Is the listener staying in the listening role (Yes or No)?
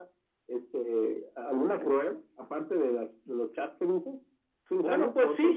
No